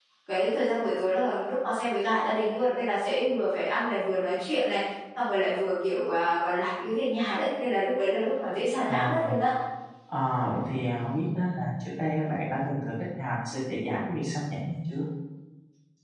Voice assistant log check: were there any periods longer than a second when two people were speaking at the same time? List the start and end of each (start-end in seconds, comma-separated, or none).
none